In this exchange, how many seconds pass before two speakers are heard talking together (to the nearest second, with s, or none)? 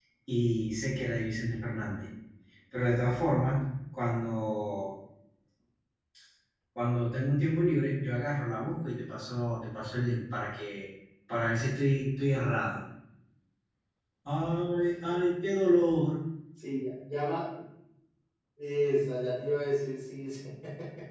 none